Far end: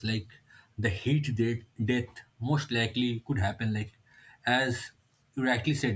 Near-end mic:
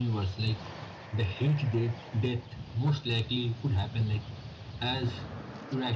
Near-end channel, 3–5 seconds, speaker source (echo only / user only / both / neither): echo only